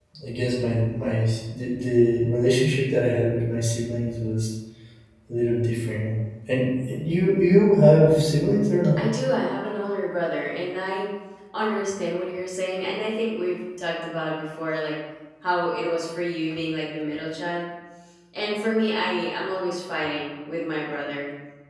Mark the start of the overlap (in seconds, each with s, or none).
none